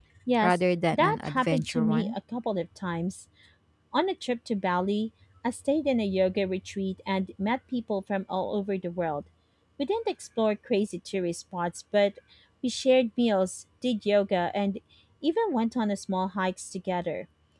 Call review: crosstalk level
present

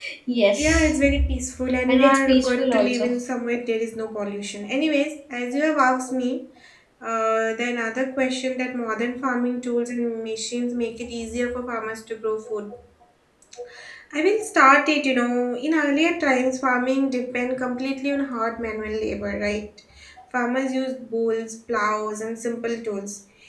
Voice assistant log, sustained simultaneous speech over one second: present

